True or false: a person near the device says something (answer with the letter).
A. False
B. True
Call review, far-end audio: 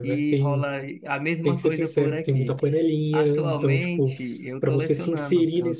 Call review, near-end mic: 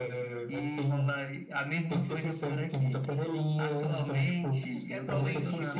B